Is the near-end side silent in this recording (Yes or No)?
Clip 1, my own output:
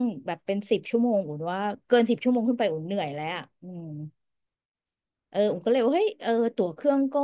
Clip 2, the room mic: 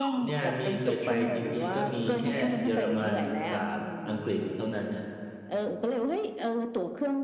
No